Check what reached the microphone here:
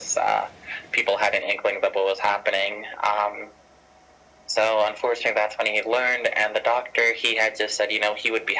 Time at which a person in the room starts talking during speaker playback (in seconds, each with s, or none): none